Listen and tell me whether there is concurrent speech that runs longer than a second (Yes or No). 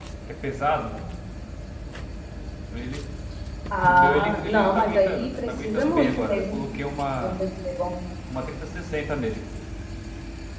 Yes